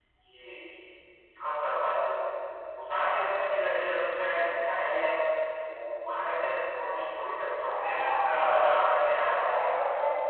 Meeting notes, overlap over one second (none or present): present